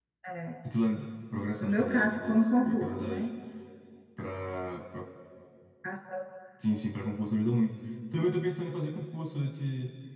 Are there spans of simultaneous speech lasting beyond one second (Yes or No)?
Yes